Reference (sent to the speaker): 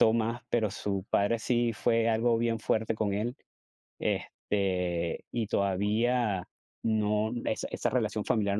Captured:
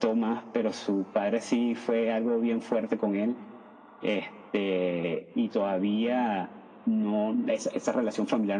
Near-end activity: none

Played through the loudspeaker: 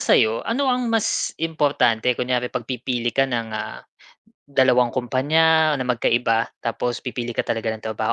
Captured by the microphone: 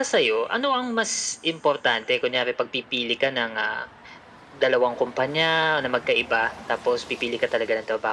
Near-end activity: none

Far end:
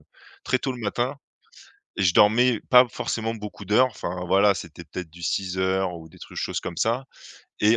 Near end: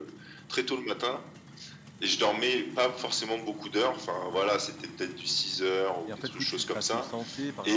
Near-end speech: present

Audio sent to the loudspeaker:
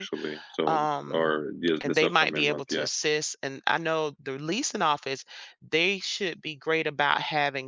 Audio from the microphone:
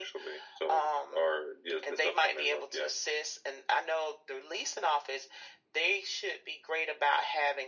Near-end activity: none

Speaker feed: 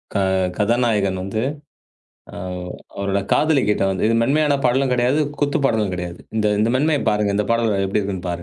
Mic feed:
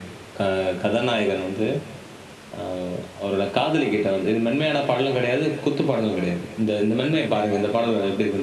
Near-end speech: none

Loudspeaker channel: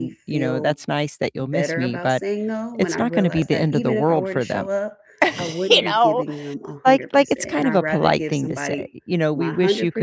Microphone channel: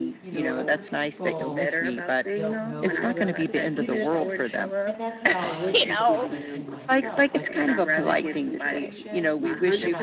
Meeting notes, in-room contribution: present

